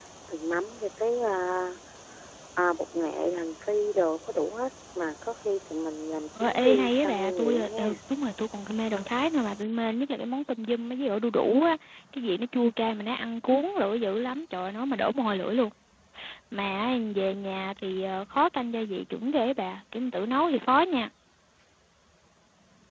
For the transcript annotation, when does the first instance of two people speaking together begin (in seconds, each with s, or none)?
6.4 s